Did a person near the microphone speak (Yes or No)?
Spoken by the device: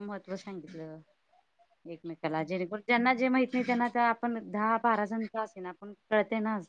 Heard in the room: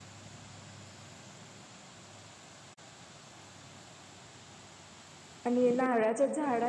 Yes